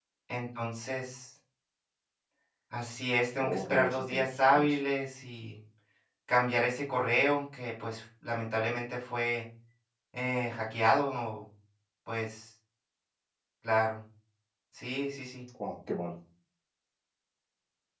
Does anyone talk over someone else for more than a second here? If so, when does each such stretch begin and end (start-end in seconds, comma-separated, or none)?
3.4-4.8